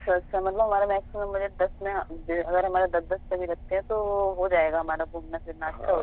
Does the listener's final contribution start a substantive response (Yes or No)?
Yes